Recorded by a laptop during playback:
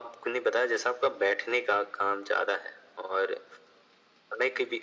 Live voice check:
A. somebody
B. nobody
B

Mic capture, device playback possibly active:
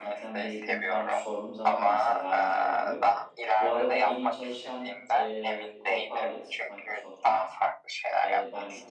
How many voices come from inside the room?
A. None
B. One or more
B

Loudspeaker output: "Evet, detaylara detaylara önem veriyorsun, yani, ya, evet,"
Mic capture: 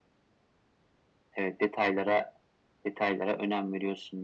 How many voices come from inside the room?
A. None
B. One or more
A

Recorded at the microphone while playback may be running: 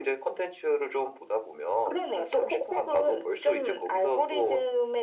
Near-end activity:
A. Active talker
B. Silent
B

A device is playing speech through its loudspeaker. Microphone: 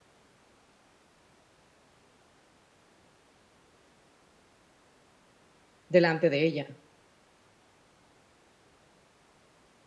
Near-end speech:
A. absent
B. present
B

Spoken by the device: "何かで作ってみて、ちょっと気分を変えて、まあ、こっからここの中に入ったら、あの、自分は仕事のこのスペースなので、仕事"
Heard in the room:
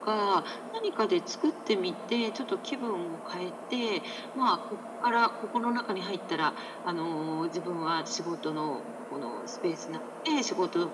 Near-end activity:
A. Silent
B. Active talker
A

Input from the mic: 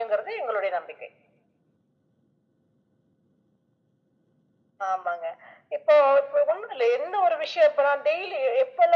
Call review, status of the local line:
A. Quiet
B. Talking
A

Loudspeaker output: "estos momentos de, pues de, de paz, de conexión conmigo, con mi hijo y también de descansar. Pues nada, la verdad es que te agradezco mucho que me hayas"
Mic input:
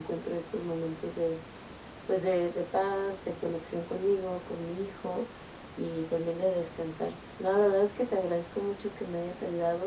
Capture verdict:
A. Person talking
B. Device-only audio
B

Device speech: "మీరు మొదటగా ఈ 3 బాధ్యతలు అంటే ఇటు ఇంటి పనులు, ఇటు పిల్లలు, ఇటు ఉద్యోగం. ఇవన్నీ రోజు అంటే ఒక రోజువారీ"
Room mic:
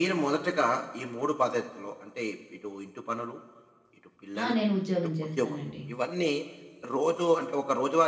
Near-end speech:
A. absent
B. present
B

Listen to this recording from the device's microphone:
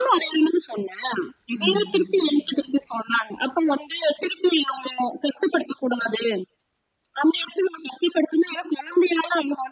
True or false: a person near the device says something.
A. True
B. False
A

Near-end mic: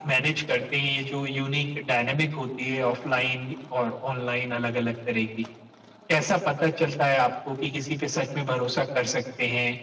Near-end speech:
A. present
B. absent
B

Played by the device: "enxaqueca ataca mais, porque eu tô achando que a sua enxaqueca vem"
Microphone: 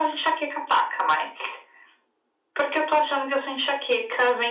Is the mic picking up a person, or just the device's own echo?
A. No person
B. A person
A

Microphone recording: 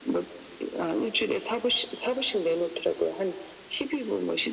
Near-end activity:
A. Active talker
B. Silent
B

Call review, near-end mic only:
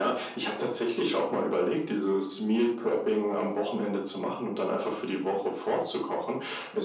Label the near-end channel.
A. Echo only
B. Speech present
A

